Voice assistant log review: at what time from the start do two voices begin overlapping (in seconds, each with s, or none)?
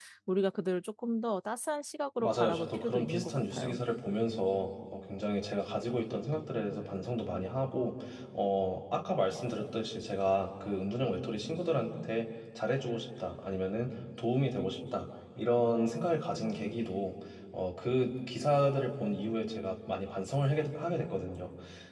2.2 s